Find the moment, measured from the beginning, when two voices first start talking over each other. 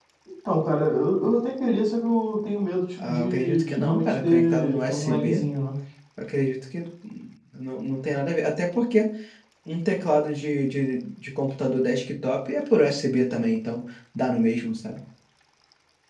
3.0 s

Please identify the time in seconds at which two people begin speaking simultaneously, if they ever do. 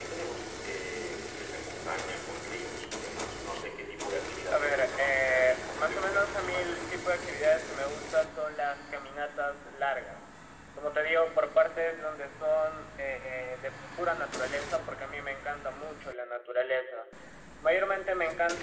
4.5 s

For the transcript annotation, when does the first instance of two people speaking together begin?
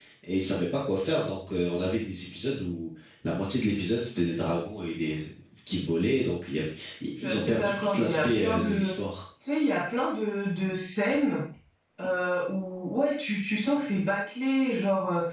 7.2 s

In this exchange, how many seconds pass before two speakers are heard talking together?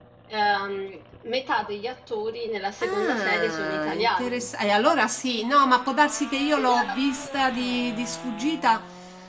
2.8 s

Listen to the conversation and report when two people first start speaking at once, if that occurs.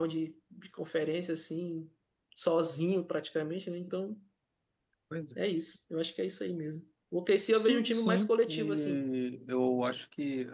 7.5 s

